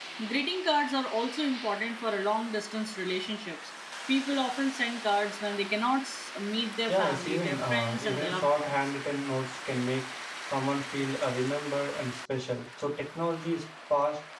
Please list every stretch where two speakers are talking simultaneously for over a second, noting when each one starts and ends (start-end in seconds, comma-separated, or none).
6.9-8.8